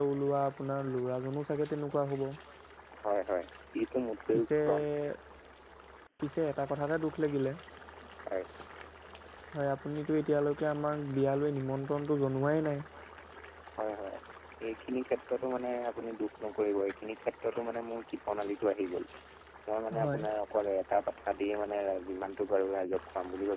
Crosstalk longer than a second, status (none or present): none